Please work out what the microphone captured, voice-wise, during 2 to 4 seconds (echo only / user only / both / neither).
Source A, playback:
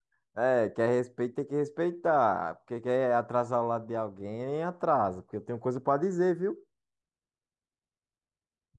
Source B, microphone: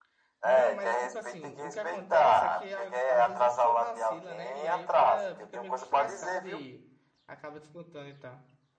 both